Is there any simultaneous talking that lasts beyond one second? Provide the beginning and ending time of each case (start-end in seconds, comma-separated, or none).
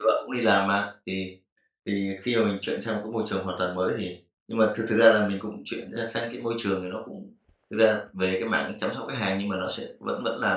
none